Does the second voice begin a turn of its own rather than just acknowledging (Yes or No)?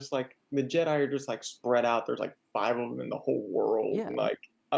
Yes